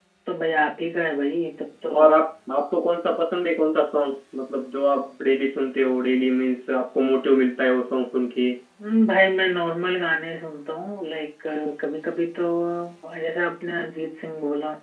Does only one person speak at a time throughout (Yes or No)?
Yes